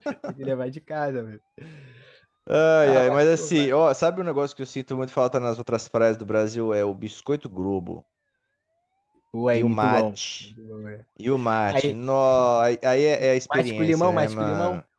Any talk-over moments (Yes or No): Yes